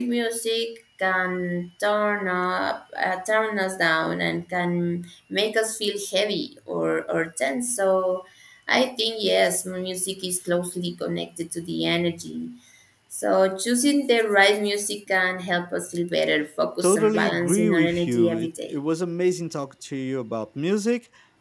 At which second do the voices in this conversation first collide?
17 s

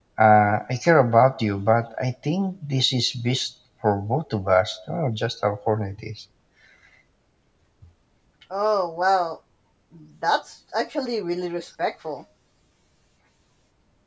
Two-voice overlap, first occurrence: none

